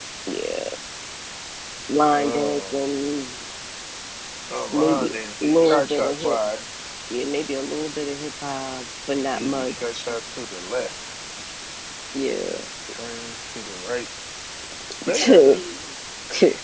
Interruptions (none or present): present